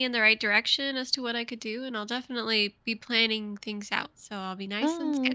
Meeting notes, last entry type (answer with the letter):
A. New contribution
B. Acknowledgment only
A